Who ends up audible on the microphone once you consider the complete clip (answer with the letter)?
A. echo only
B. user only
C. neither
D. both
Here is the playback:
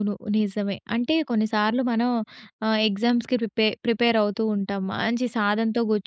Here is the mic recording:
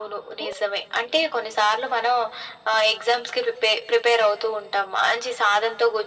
A